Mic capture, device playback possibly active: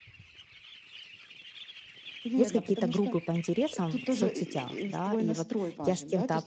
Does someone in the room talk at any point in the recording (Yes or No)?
Yes